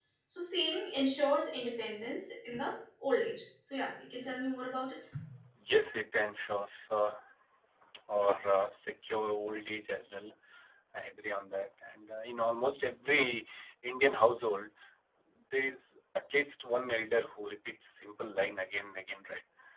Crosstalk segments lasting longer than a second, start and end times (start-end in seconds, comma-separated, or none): none